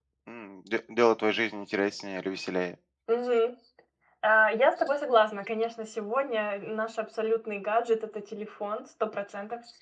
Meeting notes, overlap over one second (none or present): none